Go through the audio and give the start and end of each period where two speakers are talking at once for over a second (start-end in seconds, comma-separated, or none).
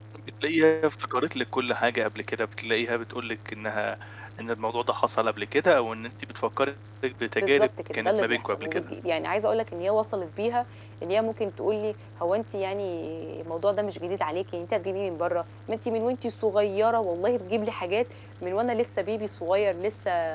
7.4-8.9